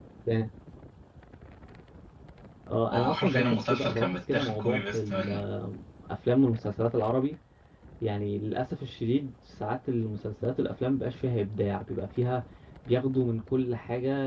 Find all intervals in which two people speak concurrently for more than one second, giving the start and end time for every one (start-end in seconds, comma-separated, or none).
2.9-5.5